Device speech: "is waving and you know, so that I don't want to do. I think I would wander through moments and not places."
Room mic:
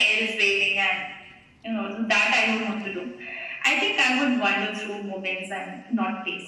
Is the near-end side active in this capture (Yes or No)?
No